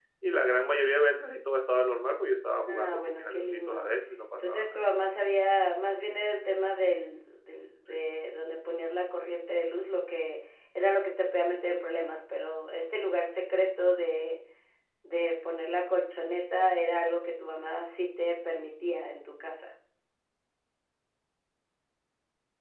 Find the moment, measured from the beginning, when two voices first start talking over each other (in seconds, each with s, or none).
2.7 s